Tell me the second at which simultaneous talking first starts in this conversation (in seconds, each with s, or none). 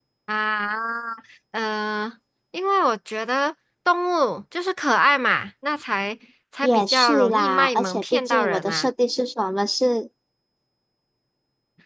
6.6 s